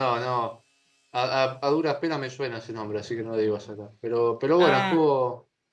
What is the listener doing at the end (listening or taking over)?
listening